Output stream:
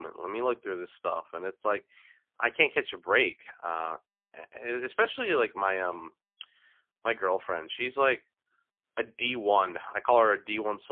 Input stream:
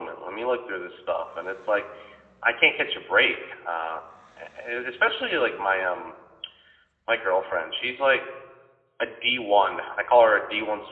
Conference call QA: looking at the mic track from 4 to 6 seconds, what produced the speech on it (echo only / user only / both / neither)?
echo only